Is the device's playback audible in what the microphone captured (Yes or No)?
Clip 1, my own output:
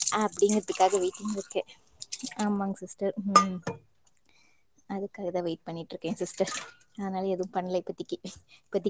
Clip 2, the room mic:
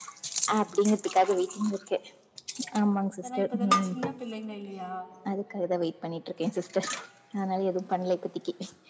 Yes